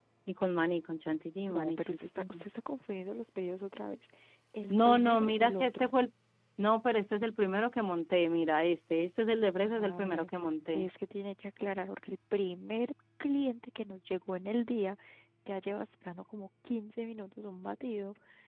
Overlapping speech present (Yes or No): Yes